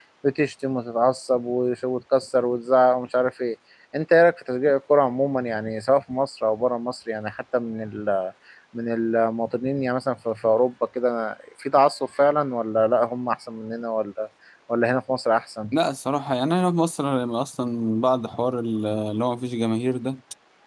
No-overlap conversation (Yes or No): Yes